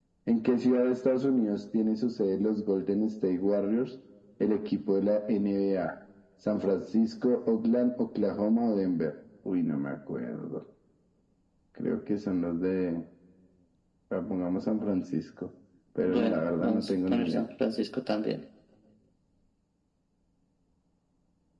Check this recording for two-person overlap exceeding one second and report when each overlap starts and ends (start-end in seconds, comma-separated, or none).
16.1-17.4